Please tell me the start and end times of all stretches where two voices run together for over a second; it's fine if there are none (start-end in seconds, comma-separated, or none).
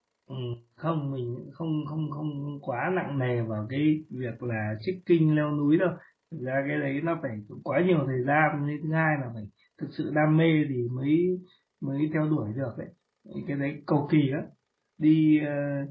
none